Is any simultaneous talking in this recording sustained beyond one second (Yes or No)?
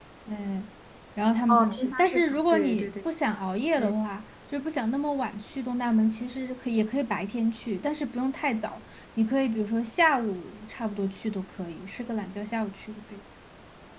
Yes